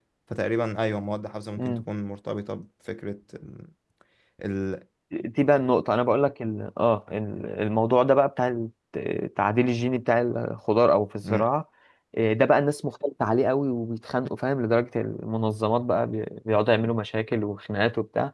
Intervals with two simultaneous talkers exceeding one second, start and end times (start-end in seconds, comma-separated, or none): none